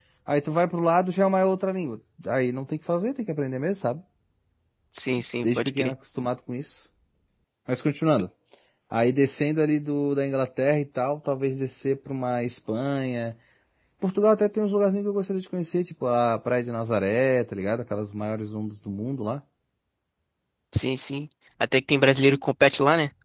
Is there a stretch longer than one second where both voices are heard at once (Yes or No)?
No